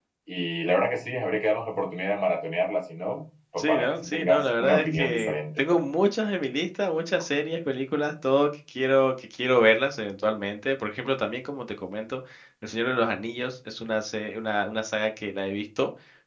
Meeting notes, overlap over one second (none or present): present